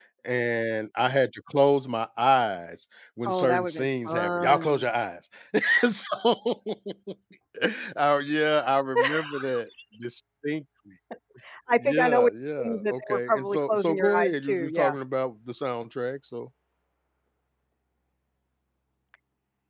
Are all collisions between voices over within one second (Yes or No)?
No